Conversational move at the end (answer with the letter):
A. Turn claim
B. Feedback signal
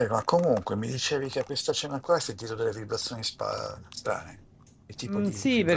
A